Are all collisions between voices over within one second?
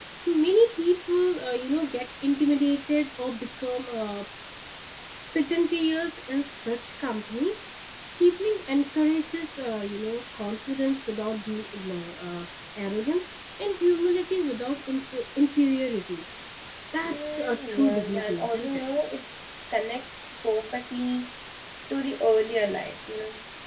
No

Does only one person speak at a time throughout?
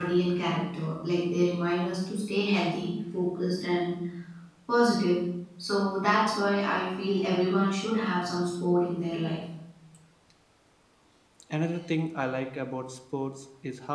Yes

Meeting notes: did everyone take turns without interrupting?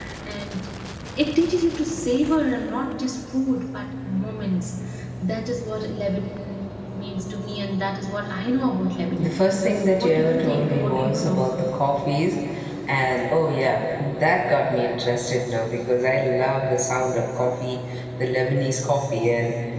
No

